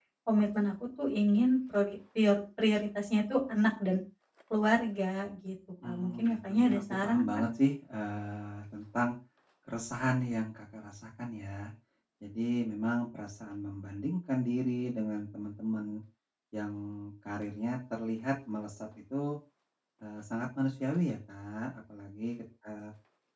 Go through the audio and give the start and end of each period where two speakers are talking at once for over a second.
5.8-7.4

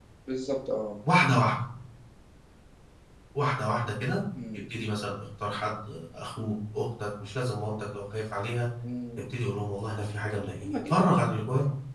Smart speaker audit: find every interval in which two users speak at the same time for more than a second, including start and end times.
none

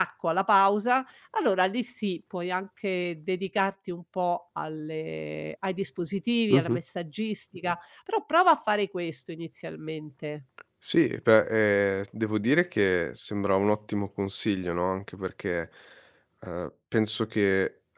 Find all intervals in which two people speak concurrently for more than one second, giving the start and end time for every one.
none

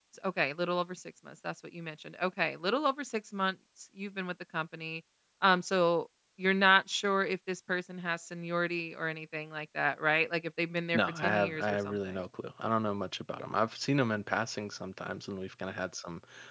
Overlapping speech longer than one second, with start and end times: 10.9-12.2

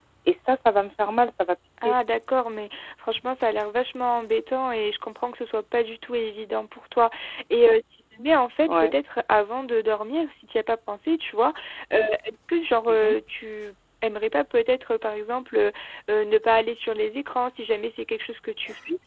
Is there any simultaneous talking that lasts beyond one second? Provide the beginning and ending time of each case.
none

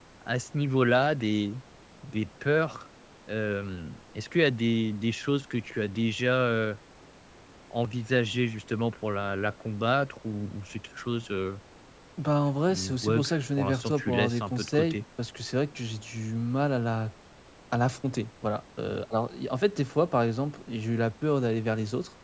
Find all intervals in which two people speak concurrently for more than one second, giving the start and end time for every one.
12.7-15.0

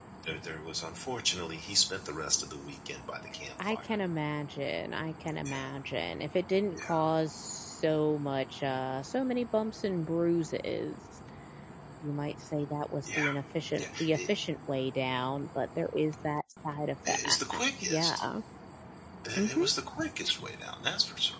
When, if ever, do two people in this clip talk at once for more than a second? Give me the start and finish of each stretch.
none

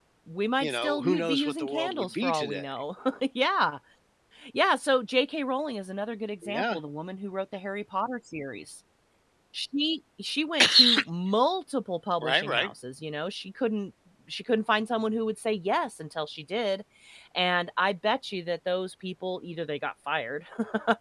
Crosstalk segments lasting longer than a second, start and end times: 0.6-2.6

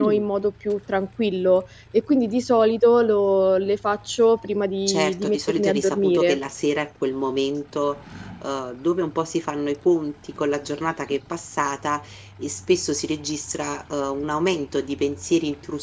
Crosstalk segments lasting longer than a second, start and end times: 4.9-6.4

